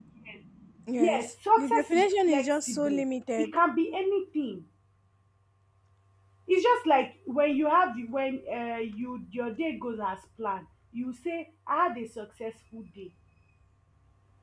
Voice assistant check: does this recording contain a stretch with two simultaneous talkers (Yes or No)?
Yes